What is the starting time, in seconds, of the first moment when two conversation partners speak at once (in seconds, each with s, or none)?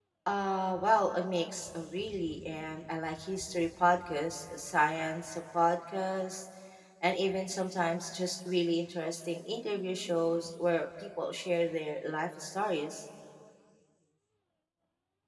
none